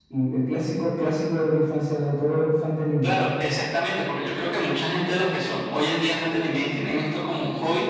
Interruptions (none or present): none